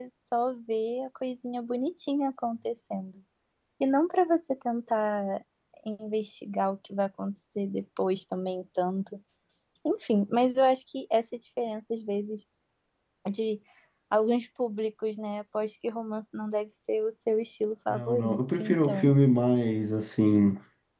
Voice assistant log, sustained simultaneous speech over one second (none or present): present